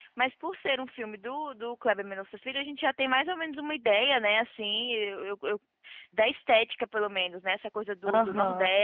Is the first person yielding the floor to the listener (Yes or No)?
No